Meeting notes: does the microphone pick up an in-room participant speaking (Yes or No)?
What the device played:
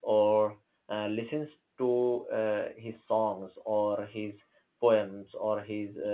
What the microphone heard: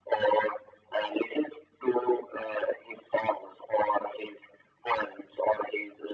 No